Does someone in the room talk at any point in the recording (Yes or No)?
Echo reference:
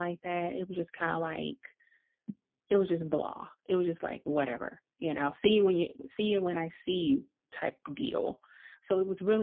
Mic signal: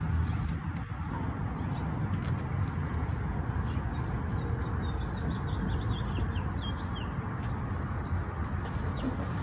No